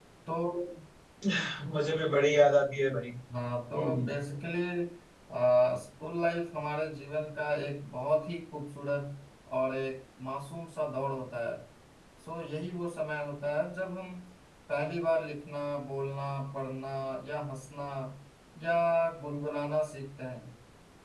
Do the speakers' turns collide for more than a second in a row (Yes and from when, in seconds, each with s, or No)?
No